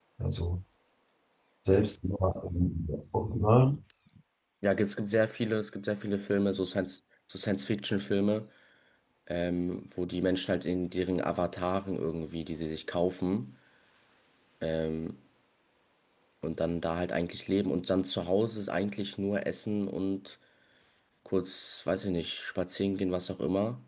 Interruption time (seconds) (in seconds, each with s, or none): none